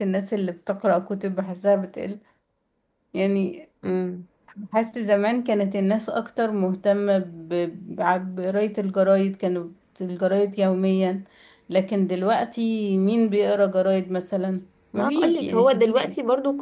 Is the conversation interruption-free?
No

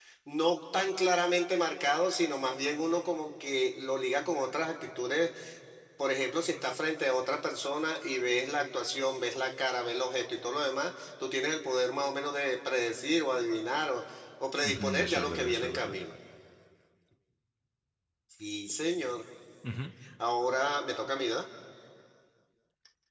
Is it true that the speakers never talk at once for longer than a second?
No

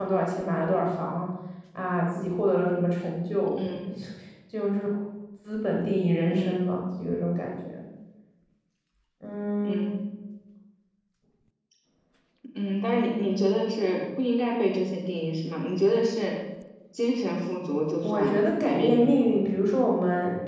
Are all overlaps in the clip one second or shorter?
No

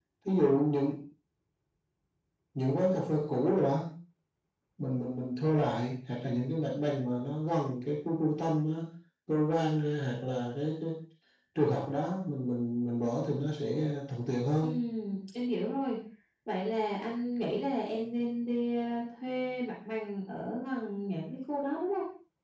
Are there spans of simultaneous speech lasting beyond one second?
No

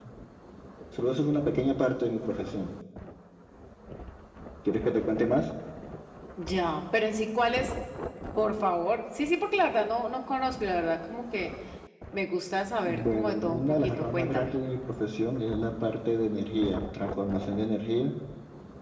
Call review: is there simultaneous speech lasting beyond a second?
Yes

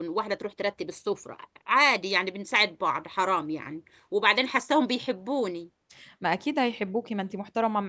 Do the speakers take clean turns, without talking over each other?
Yes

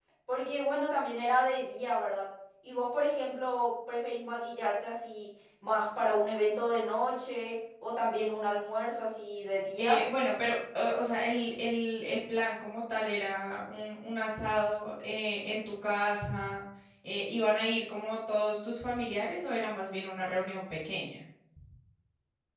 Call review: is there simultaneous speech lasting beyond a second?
No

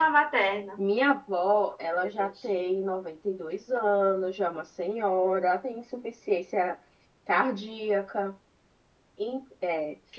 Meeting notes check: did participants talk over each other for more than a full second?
No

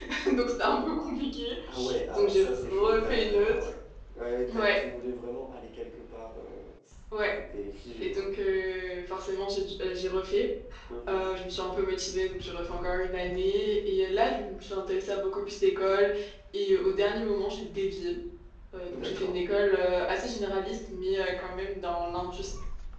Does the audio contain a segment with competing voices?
Yes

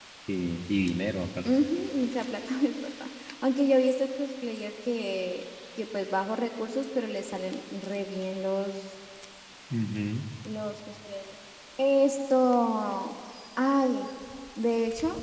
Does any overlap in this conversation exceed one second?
No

